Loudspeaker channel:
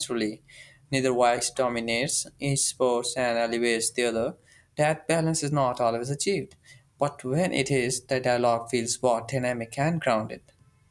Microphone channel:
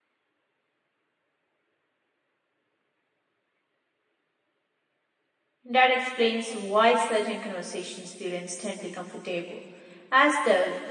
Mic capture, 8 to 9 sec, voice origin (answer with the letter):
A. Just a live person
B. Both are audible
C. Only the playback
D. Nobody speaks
A